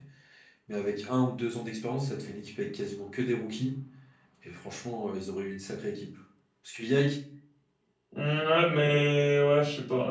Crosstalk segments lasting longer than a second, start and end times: none

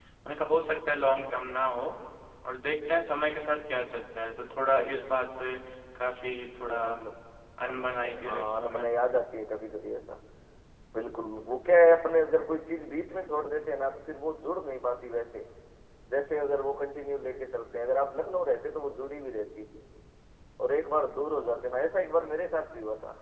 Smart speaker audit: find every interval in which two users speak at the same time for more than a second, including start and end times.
7.7-8.9

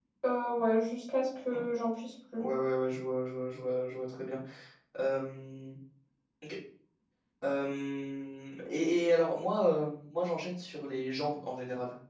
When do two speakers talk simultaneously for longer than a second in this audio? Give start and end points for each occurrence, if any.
none

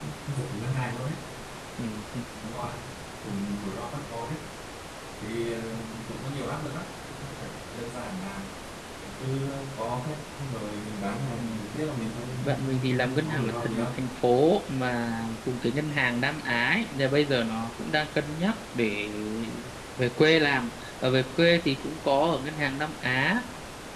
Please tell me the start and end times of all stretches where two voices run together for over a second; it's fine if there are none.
12.4-13.9

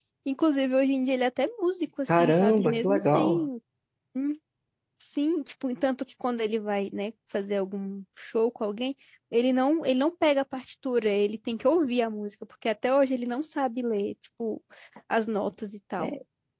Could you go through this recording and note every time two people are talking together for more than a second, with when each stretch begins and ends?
2.1-3.5

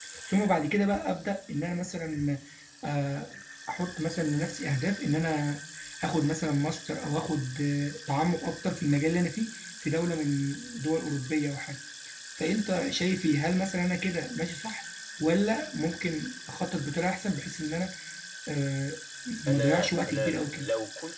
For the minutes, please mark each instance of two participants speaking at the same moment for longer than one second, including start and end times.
19.5-20.7

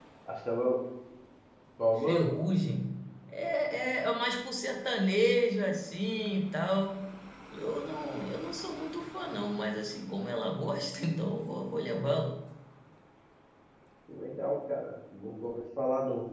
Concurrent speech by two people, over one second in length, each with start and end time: none

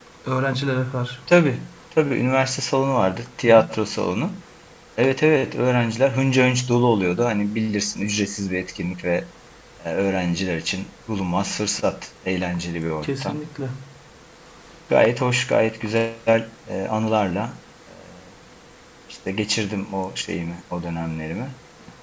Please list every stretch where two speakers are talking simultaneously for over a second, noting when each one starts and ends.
none

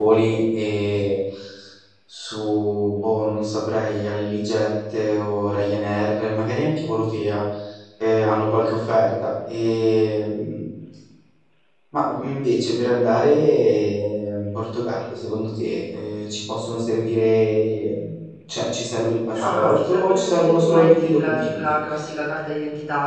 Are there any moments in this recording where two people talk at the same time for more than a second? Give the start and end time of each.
19.4-21.8

